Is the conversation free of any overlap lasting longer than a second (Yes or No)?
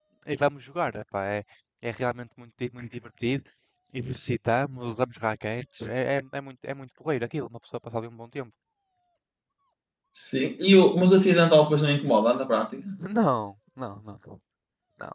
Yes